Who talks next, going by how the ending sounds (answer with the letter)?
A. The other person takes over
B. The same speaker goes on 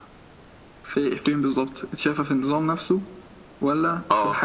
B